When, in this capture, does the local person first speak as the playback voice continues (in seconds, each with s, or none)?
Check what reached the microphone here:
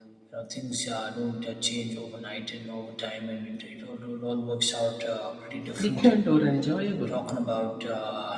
5.7 s